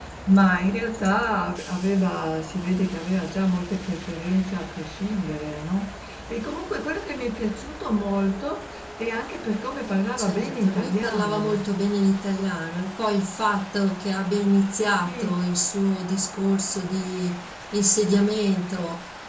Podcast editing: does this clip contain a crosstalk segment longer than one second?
Yes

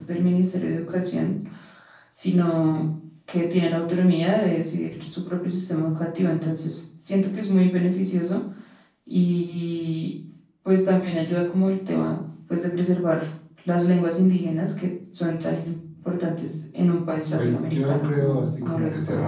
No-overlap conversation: No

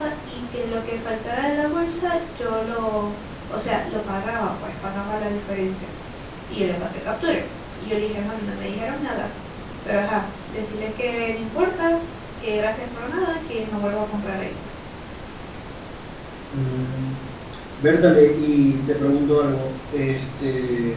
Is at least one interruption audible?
No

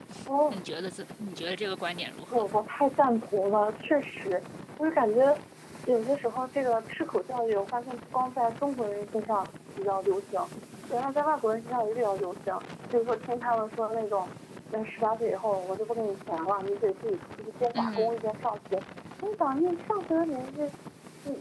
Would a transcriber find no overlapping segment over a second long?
Yes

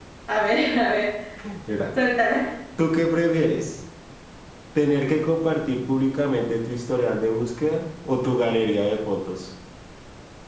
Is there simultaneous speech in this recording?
No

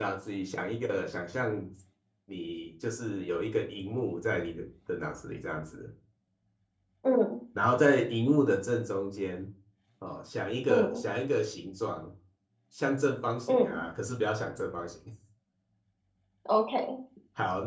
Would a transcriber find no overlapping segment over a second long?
Yes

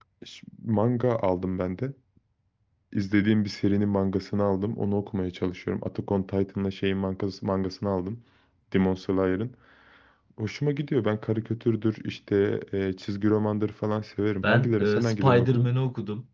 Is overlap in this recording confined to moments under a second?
No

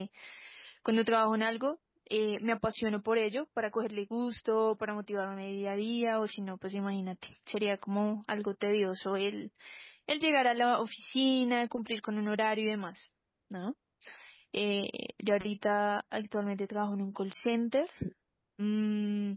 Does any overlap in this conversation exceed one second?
No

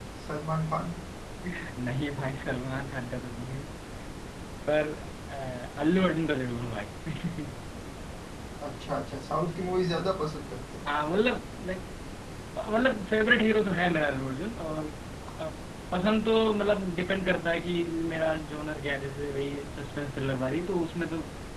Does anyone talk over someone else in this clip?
No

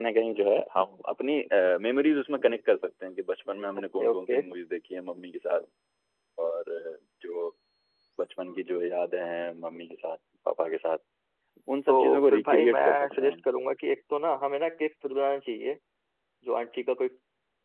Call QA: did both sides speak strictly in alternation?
No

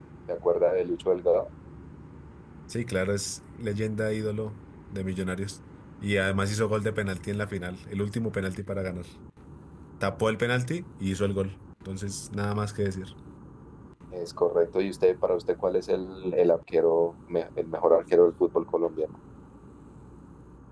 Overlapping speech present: No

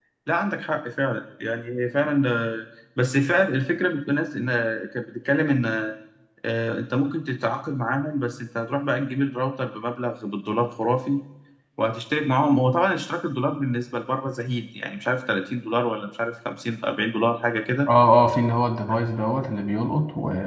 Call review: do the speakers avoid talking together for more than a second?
Yes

